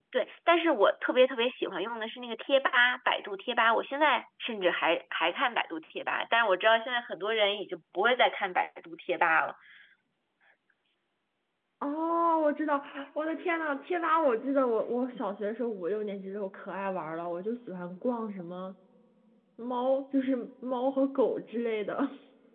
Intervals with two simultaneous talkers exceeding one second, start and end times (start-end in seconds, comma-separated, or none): none